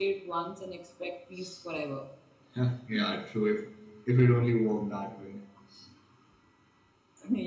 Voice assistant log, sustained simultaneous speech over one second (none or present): none